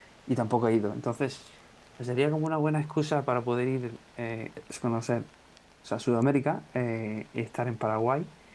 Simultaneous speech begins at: none

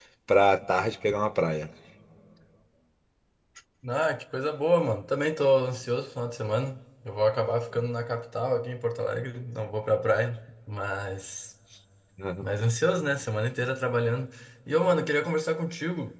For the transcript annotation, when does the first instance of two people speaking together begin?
none

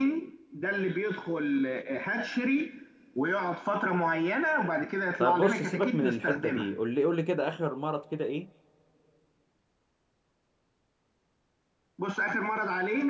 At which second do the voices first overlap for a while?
5 s

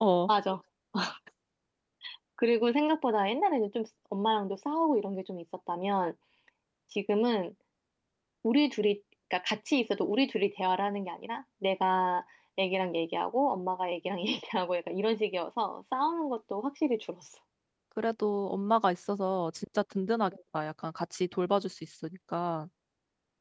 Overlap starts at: none

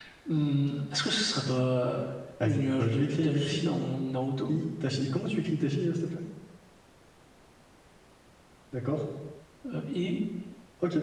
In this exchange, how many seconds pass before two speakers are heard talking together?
2 s

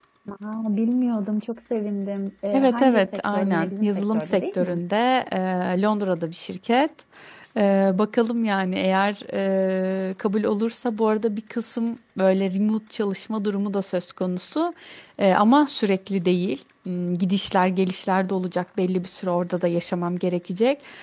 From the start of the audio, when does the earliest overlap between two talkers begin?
3 s

